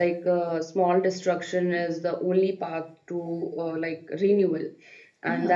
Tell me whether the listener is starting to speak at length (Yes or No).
No